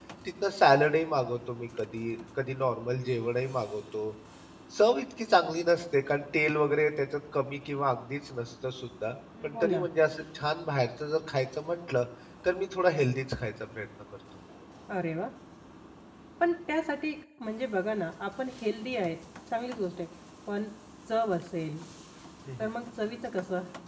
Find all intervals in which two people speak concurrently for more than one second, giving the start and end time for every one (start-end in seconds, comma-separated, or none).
none